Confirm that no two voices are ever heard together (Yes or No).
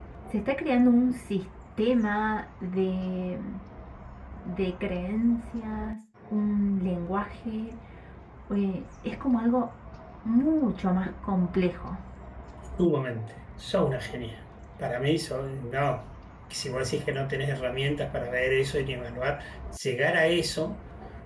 Yes